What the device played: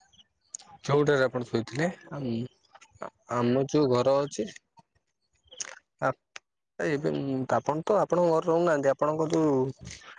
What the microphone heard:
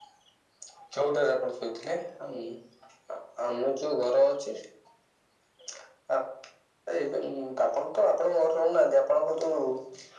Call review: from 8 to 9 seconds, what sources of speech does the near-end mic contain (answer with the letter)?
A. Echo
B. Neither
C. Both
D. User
A